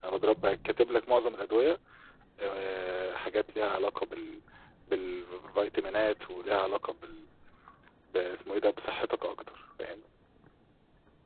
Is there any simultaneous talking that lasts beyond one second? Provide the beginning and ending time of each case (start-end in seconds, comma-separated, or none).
none